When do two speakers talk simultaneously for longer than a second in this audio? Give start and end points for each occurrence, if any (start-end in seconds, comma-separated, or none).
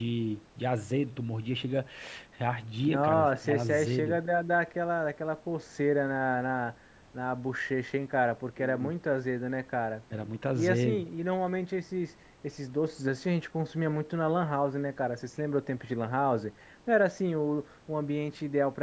2.9-4.2